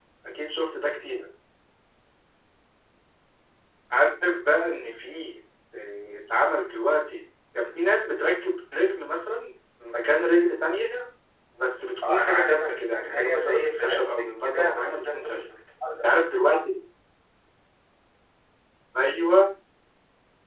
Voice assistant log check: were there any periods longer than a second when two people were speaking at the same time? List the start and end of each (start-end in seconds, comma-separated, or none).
12.1-15.4